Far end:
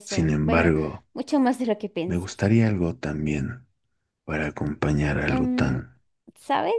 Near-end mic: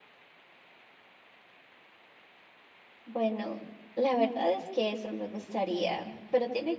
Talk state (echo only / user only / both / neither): user only